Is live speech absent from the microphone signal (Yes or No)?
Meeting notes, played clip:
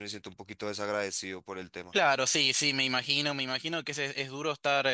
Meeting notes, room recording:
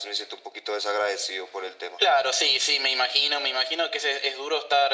Yes